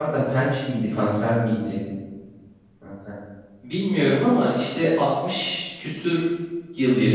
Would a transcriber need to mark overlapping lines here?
No

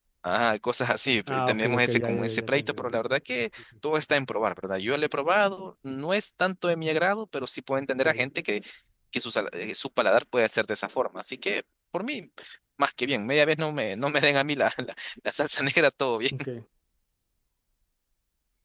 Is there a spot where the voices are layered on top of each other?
Yes, from 1.3 s

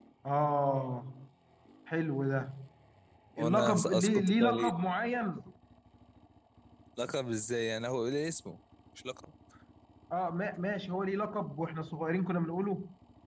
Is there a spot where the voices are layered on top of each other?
Yes, from 3.4 s

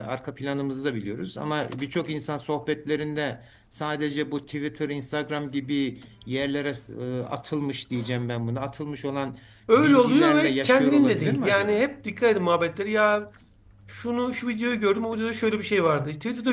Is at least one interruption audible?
Yes, from 9.7 s

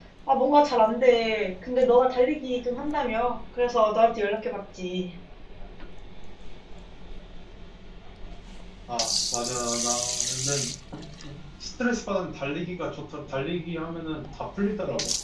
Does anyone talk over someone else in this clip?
No

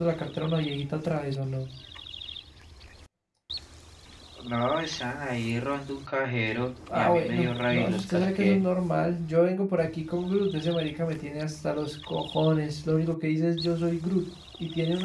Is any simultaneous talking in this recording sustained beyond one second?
Yes, from 6.9 s

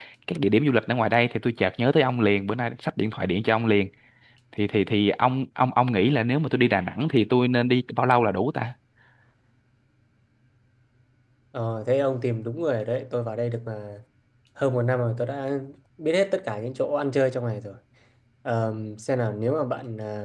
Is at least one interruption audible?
No

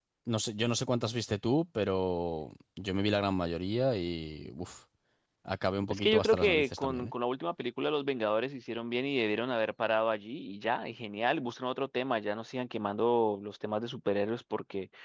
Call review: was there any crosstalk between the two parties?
Yes, from 5.9 s

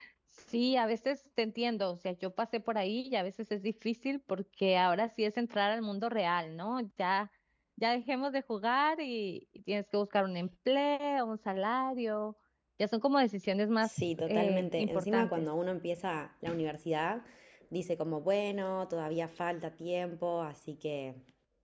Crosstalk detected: Yes, from 13.8 s

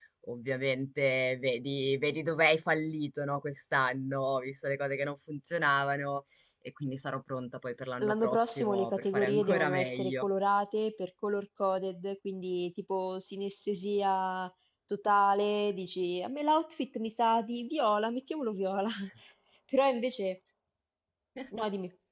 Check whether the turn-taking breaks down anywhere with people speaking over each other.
Yes, from 8.0 s

